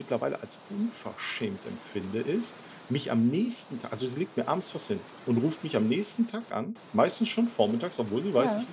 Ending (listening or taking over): listening